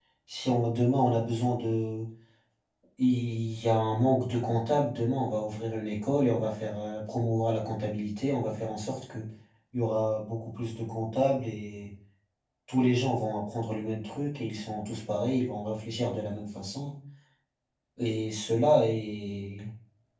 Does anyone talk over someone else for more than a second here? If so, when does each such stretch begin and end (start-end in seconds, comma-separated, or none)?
none